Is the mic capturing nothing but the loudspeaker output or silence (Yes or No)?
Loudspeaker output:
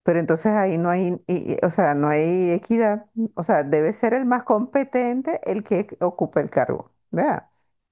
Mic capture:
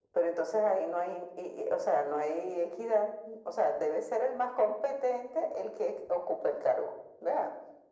Yes